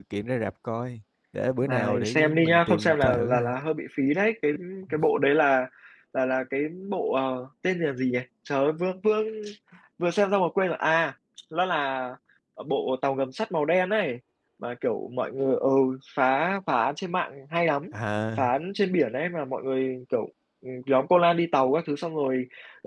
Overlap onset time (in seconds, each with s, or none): 1.6 s